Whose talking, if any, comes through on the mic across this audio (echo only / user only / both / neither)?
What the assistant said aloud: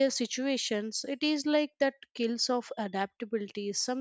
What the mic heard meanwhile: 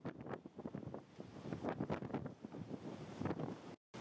neither